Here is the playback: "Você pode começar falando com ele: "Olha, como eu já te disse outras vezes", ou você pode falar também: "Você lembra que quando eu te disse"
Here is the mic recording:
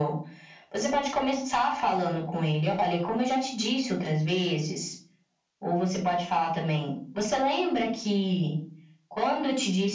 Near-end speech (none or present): none